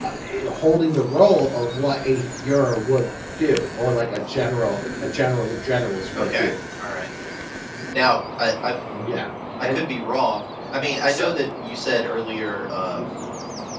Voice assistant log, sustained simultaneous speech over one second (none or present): none